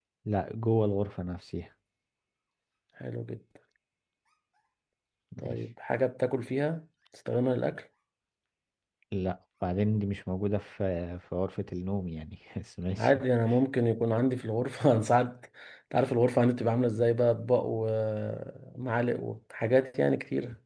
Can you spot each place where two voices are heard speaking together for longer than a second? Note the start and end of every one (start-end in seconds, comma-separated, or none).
none